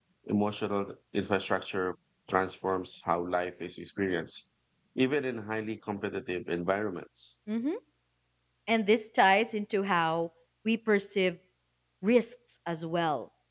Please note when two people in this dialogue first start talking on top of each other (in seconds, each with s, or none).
none